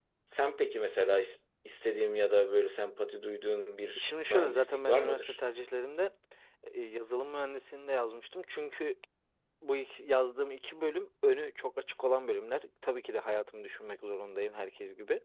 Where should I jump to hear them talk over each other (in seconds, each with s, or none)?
4.0 s